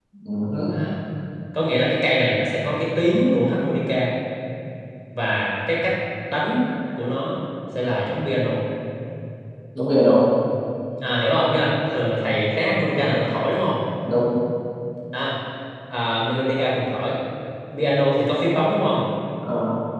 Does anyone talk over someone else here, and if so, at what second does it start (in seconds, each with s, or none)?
none